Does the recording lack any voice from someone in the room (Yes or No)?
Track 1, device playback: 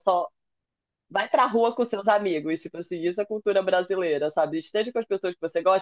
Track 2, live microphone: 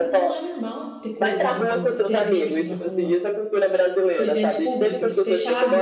No